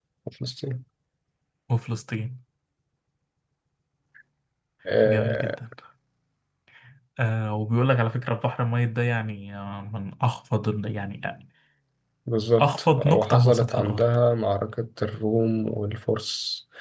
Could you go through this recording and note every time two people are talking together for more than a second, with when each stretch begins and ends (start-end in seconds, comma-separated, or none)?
12.6-14.0